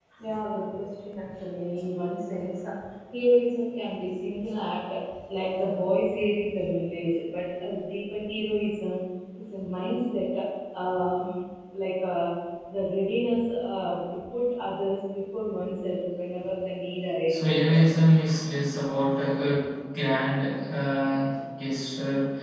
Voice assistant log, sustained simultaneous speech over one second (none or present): none